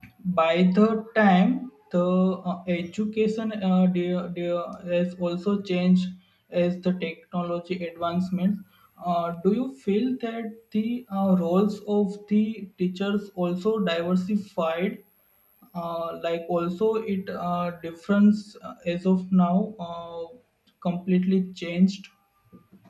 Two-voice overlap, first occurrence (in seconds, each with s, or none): none